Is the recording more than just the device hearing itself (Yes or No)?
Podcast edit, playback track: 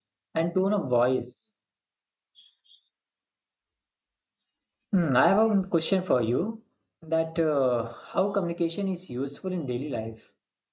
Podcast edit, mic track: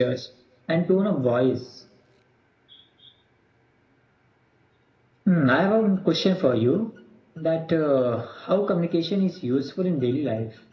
No